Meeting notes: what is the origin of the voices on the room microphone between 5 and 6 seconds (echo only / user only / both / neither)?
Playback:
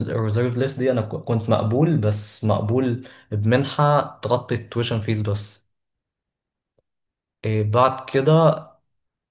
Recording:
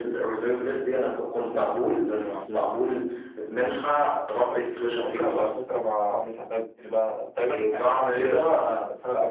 both